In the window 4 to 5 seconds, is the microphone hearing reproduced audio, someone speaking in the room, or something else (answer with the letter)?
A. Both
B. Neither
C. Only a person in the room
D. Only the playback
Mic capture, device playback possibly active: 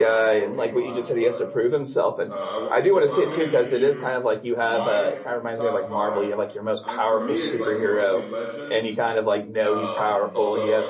A